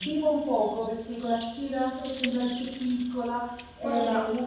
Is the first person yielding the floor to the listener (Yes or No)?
Yes